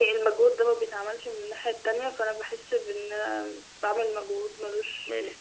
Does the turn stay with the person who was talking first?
No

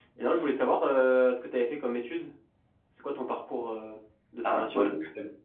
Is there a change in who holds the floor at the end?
Yes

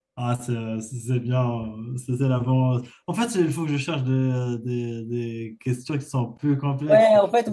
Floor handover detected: Yes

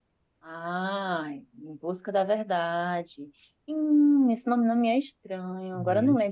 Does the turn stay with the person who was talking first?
Yes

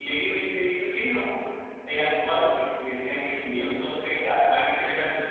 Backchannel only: Yes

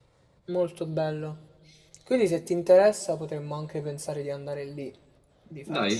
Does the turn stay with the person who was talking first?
No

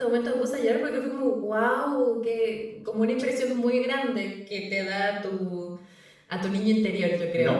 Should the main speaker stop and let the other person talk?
Yes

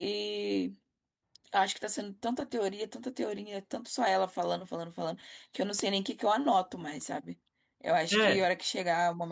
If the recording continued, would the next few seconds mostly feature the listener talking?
No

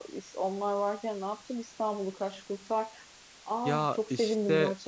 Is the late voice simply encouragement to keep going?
No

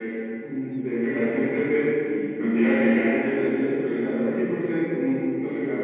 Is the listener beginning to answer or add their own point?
No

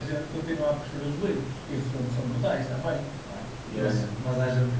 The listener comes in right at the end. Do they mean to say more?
No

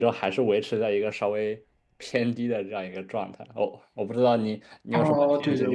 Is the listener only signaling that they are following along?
No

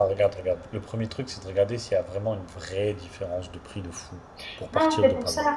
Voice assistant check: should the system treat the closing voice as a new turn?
Yes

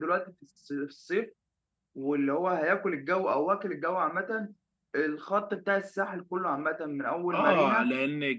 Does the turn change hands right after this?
Yes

